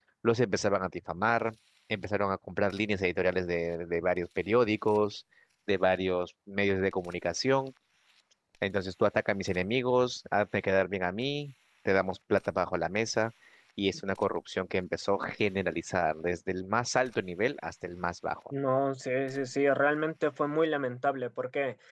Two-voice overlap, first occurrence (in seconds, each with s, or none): none